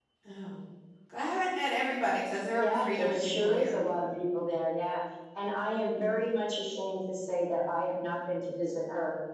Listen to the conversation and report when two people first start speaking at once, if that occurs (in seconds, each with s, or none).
2.5 s